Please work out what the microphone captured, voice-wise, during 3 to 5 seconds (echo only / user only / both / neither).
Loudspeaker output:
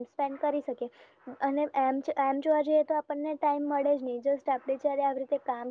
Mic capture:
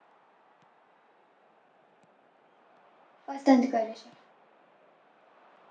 user only